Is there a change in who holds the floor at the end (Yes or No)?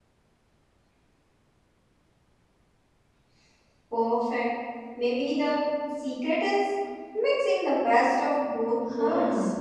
Yes